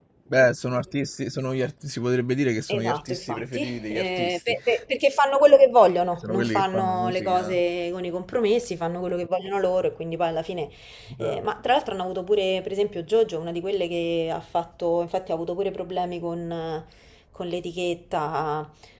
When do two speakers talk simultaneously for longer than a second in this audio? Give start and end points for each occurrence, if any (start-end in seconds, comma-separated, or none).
2.7-4.6, 6.2-7.6